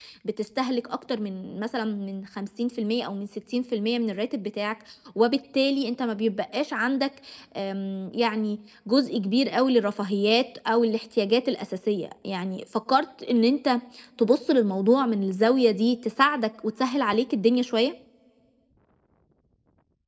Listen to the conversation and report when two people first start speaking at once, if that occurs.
none

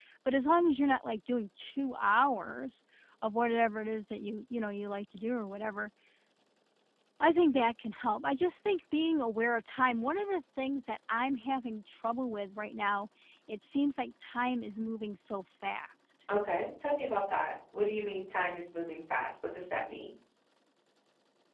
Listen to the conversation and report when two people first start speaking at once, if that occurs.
none

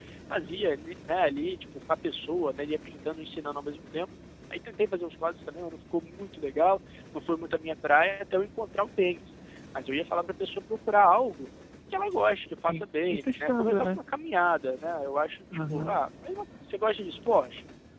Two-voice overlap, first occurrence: 12.6 s

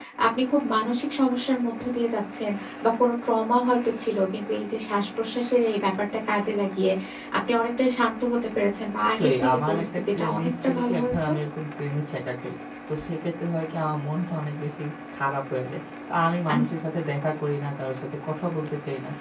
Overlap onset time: 9.0 s

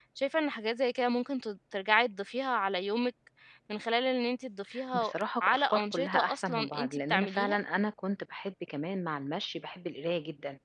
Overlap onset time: 4.9 s

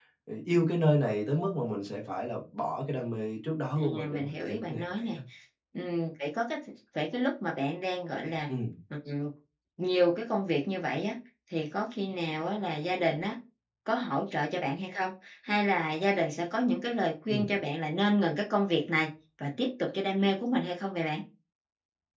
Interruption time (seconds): 3.8 s

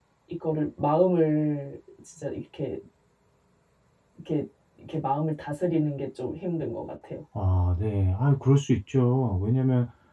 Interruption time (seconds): none

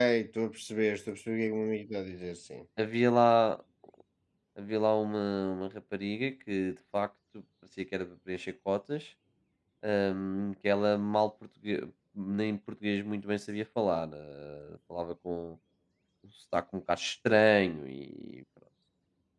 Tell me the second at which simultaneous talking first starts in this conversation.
none

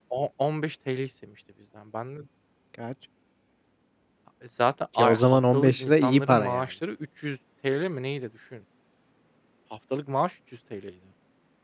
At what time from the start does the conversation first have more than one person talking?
5.0 s

